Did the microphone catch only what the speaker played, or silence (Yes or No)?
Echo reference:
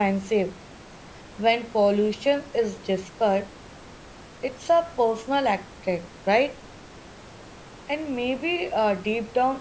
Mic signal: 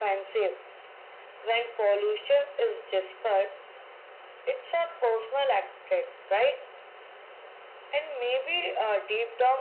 Yes